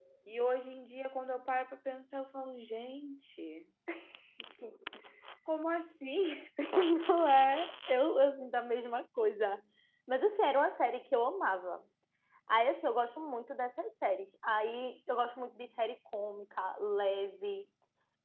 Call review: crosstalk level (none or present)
none